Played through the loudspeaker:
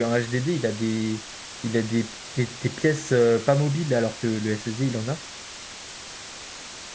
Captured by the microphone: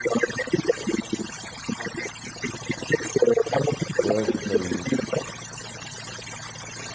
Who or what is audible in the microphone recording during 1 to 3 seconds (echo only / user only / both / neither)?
echo only